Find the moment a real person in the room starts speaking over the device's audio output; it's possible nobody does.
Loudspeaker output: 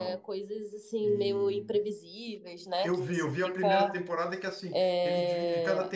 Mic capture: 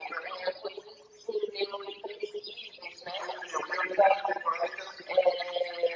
none

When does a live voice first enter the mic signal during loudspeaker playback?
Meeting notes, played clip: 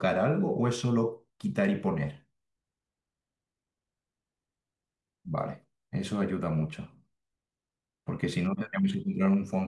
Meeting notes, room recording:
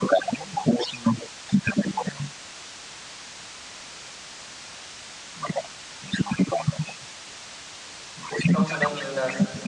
8.4 s

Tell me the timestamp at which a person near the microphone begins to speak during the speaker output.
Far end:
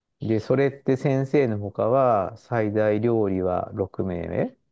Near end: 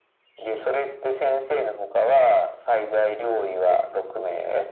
none

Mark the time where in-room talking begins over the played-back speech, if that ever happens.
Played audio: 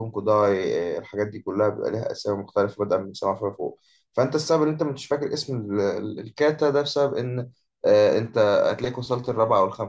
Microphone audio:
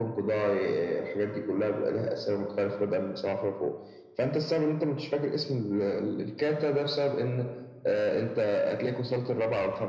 none

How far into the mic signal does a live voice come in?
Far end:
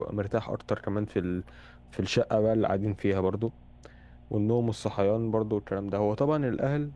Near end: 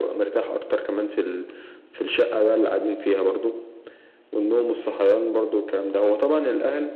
none

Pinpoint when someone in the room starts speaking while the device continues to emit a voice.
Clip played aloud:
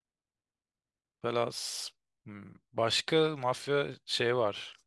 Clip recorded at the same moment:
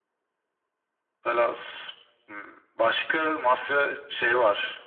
none

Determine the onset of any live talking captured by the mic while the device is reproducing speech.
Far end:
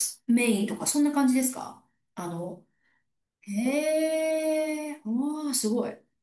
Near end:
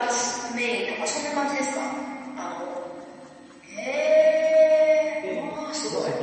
5.2 s

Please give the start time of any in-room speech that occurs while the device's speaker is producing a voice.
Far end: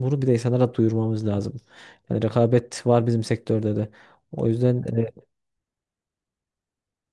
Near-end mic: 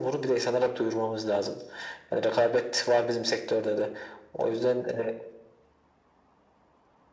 none

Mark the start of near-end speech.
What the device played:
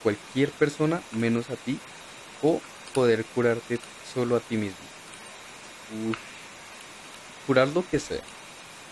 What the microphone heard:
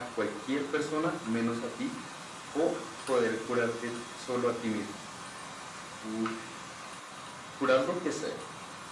none

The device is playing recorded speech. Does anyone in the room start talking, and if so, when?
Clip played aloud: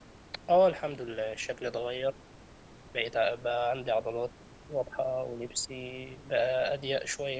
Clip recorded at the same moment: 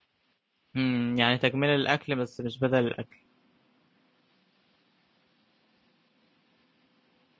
0.8 s

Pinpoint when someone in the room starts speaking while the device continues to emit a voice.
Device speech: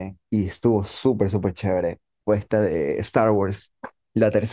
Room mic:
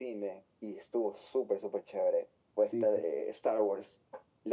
2.6 s

